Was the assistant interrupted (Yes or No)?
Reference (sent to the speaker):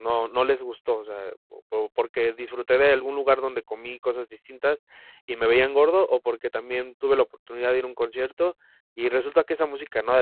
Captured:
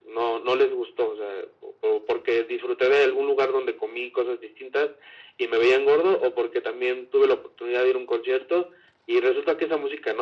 No